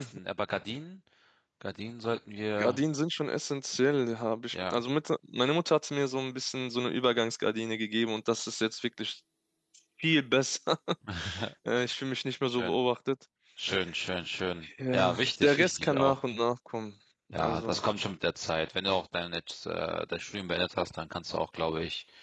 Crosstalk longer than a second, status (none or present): present